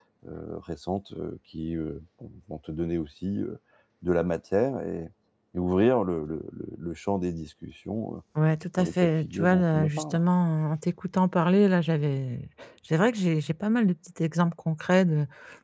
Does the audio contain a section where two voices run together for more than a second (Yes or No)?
Yes